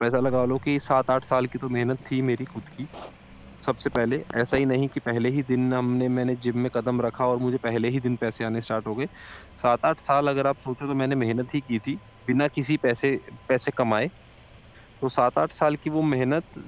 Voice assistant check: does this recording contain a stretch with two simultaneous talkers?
No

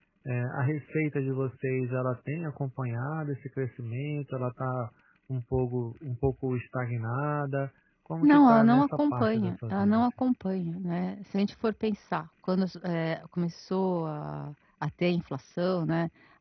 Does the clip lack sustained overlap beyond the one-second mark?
No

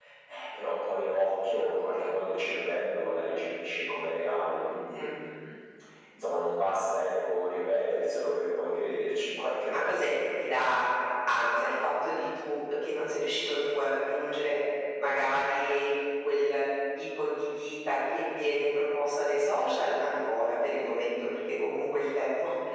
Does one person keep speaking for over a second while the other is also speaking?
No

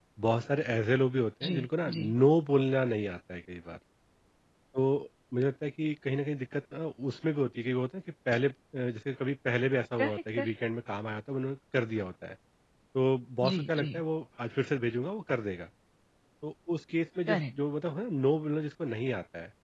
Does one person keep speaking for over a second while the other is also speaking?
No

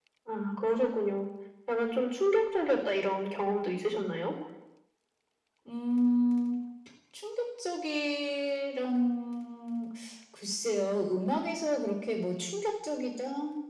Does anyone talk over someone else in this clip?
No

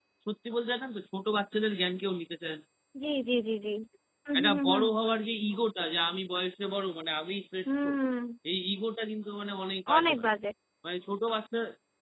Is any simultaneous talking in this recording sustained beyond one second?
No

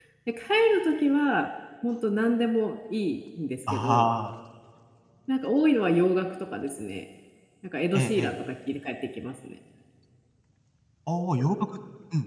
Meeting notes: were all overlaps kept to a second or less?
Yes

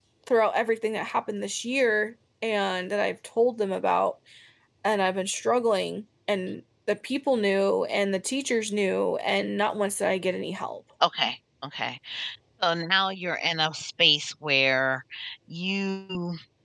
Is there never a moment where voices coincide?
Yes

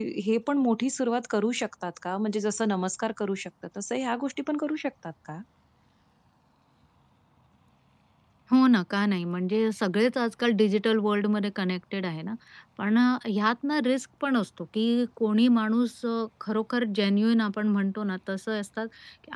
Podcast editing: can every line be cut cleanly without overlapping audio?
Yes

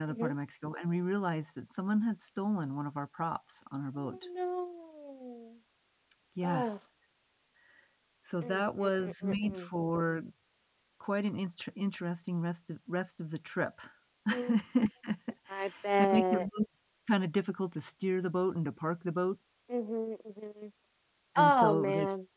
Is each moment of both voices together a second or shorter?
No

